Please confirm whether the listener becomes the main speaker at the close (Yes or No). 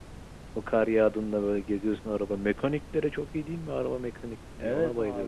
Yes